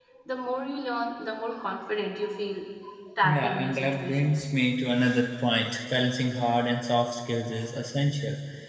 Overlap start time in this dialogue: 3 s

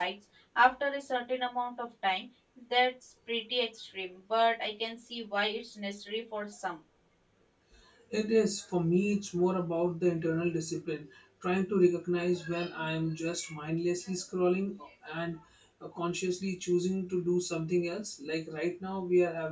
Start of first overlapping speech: none

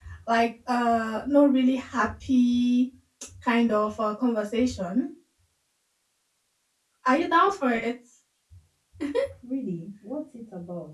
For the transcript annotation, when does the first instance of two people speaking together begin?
none

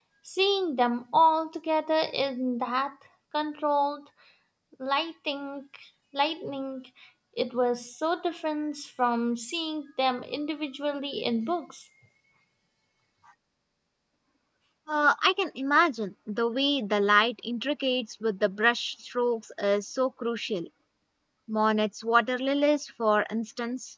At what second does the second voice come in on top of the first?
none

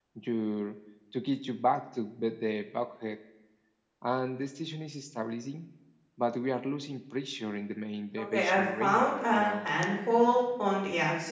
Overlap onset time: 8 s

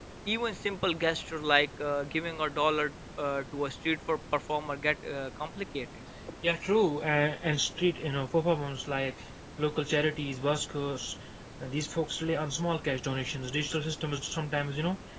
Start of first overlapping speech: none

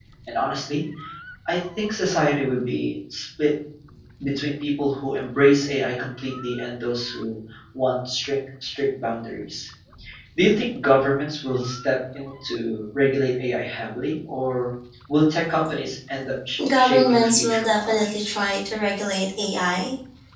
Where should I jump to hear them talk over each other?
17 s

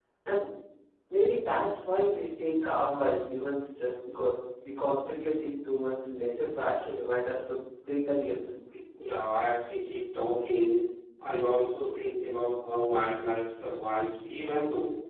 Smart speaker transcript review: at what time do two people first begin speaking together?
none

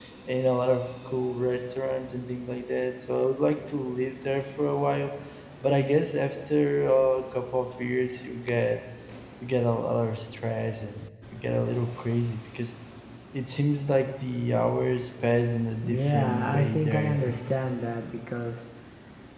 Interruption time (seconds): 16 s

